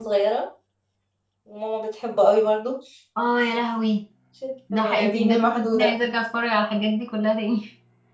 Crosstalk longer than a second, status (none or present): present